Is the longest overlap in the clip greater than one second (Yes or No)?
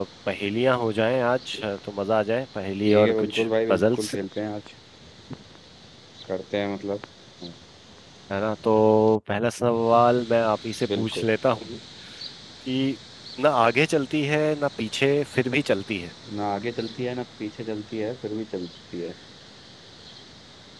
Yes